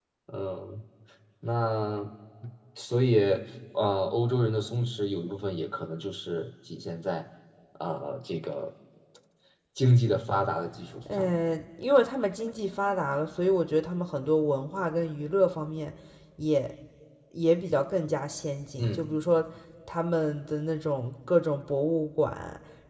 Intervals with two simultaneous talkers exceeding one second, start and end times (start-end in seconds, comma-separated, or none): none